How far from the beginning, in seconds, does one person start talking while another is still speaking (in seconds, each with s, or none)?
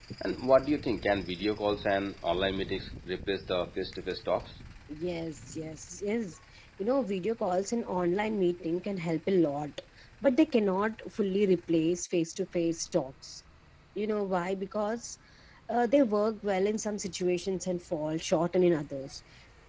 none